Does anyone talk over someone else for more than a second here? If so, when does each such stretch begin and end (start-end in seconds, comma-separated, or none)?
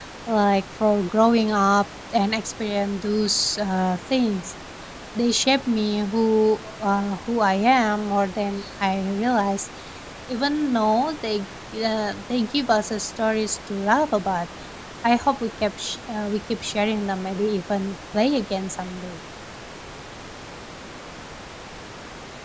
none